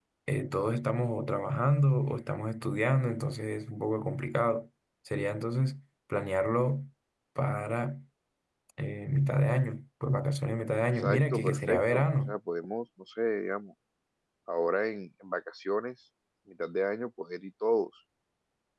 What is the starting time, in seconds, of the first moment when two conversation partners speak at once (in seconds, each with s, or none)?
11.0 s